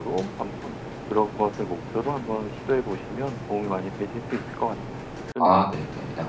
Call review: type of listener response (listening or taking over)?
taking over